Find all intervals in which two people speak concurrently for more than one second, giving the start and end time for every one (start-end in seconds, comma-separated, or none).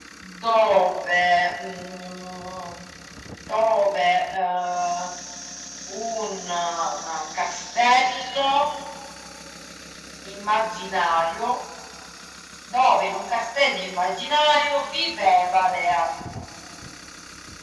none